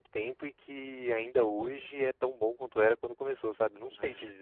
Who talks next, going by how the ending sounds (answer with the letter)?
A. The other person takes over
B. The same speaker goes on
A